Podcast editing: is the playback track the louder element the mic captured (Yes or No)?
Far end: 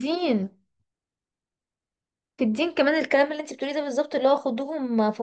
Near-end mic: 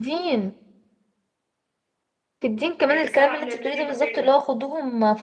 Yes